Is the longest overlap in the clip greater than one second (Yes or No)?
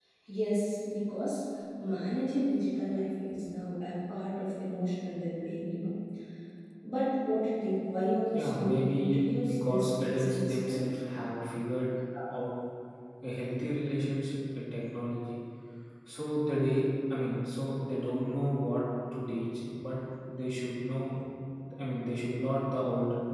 Yes